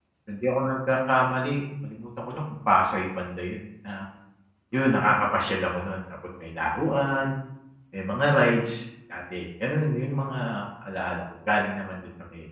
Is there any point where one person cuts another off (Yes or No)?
No